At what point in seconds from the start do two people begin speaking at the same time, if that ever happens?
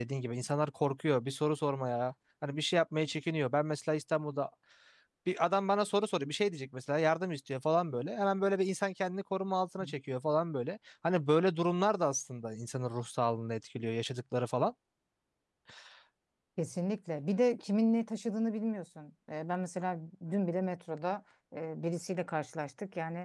none

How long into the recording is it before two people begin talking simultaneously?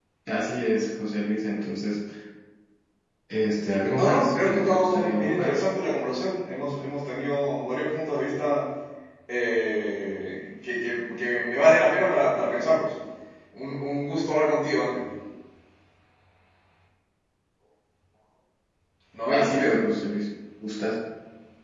4 s

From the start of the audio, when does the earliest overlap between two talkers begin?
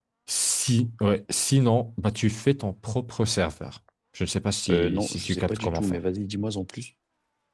5 s

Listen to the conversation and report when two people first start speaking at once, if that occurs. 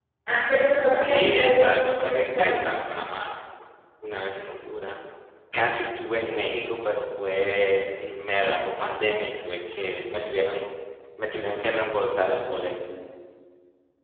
1 s

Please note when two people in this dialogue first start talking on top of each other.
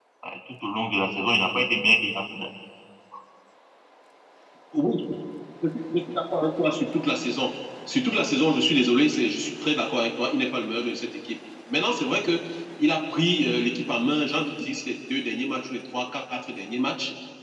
none

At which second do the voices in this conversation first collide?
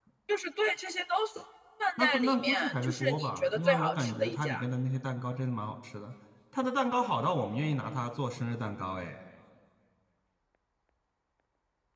2 s

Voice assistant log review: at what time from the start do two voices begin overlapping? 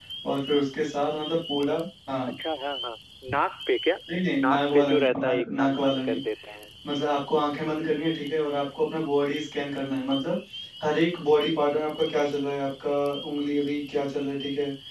4 s

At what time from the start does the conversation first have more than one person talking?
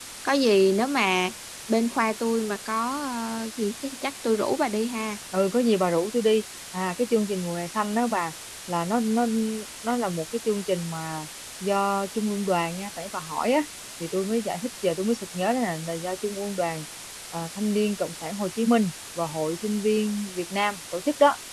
none

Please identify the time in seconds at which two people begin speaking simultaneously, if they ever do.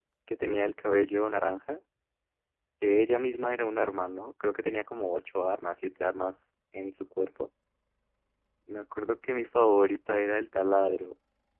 none

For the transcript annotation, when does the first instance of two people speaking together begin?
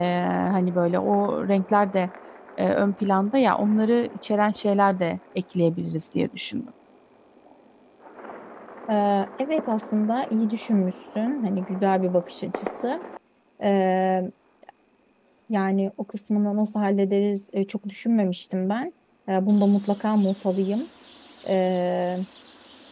none

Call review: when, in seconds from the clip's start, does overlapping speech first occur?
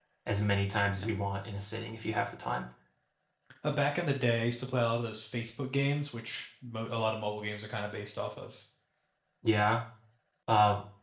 none

